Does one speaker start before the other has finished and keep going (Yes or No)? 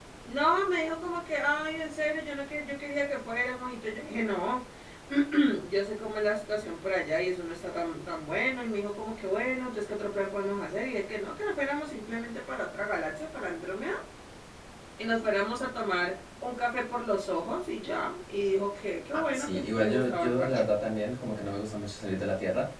Yes